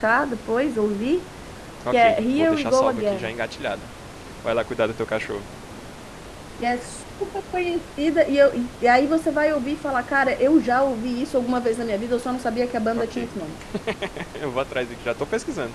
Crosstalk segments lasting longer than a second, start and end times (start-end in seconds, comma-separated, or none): 1.9-3.3